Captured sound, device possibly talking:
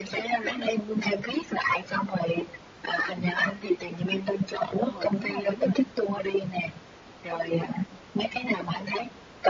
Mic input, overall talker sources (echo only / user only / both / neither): both